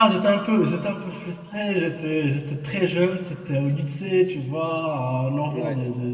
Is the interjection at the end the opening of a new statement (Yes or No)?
No